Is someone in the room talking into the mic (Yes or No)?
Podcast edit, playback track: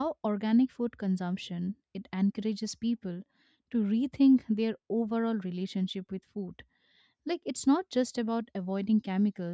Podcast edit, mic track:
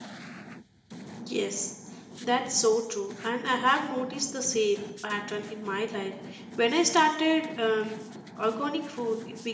Yes